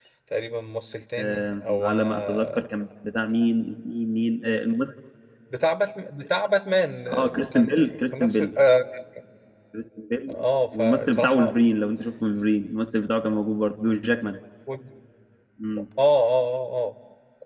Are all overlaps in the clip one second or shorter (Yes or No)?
No